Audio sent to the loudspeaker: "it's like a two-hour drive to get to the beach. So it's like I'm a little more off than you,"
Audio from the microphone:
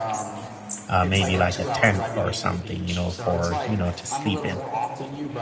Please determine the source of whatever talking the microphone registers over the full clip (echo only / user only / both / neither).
both